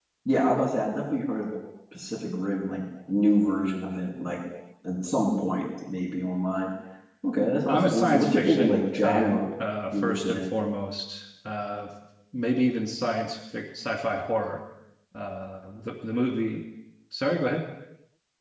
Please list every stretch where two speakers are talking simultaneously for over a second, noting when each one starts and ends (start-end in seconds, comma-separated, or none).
7.7-9.5